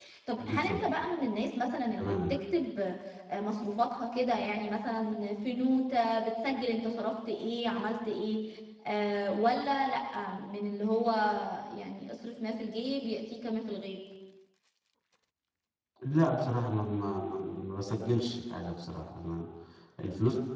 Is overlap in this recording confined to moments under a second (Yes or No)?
Yes